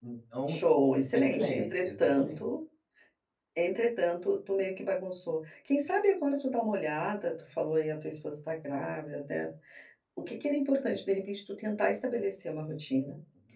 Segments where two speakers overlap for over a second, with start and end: 1.1-2.4

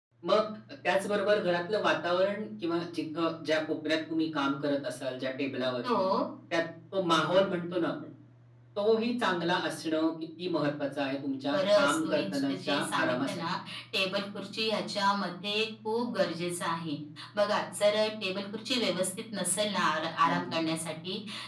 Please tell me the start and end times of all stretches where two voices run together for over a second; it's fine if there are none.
11.5-13.4

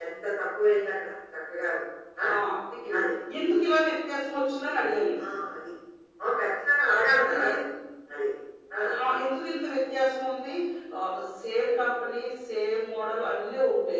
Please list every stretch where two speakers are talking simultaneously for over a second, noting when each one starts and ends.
none

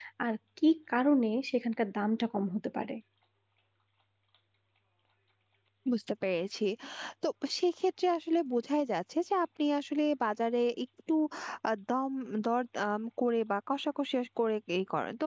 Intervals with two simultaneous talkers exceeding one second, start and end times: none

